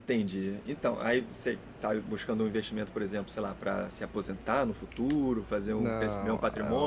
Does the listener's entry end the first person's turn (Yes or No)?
Yes